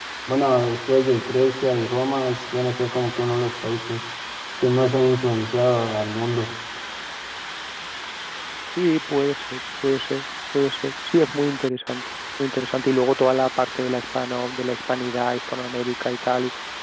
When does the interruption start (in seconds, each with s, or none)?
none